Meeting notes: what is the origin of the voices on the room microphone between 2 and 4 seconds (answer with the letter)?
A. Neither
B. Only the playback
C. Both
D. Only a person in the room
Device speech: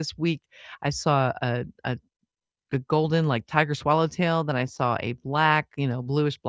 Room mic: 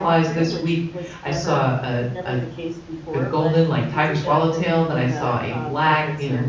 C